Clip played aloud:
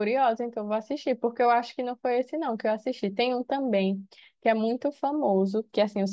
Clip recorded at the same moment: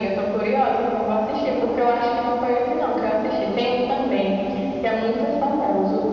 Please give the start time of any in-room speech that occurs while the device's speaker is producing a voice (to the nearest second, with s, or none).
none